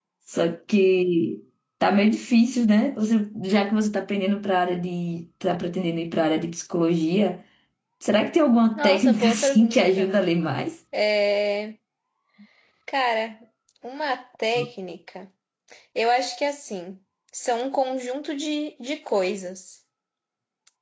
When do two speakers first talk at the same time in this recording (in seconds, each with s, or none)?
8.8 s